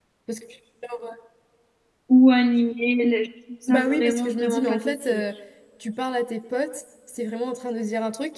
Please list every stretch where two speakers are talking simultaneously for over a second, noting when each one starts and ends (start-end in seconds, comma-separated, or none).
3.7-5.2